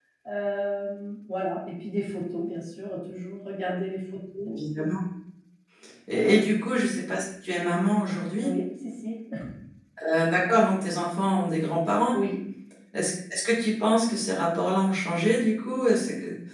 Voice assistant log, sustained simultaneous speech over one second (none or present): none